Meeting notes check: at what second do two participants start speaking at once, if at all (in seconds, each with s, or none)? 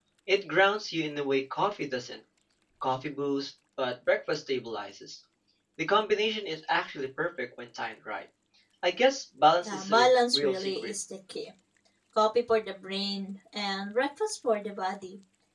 9.6 s